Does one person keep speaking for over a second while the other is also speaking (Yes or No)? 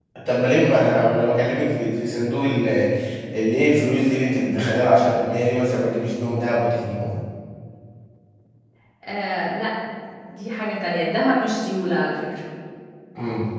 No